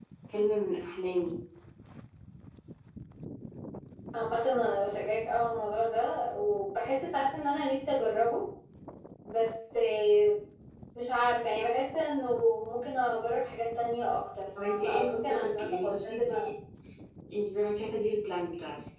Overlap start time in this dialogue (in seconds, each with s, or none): 14.6 s